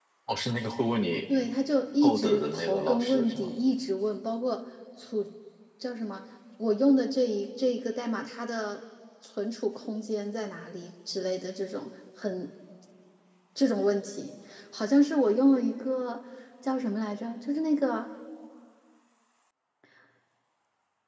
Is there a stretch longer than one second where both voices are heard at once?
Yes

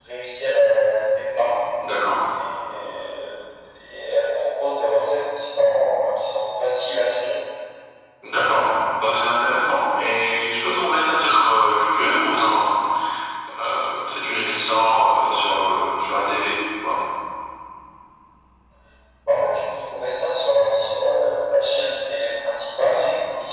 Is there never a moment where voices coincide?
Yes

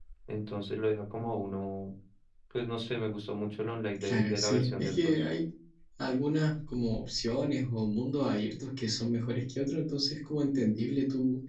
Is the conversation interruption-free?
No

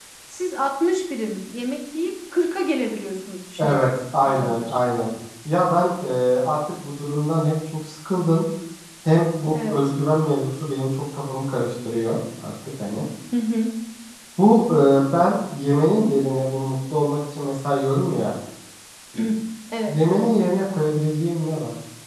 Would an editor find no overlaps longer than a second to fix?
Yes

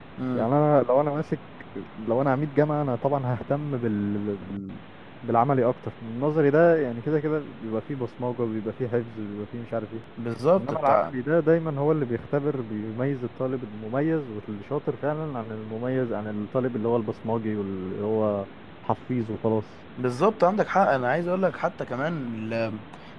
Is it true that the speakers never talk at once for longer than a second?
Yes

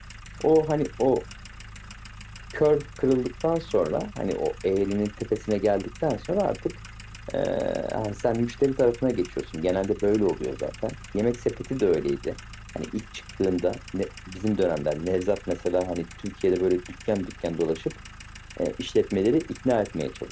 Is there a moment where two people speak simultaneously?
No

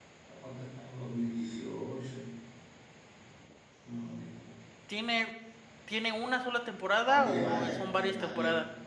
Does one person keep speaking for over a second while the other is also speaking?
Yes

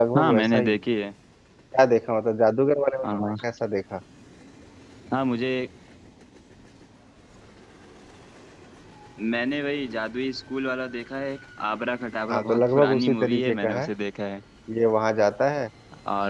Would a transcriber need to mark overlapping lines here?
Yes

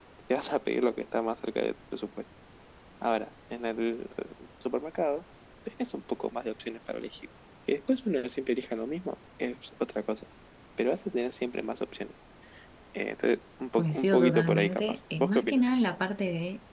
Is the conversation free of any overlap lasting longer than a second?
No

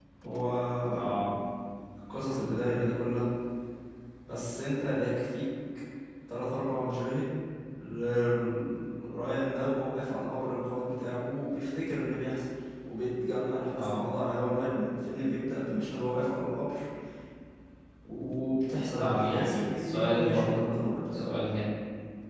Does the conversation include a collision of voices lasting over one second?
Yes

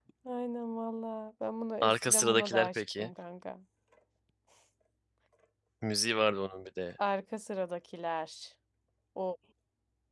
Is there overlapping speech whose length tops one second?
Yes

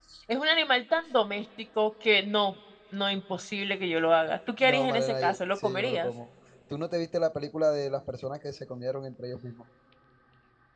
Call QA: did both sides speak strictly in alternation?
No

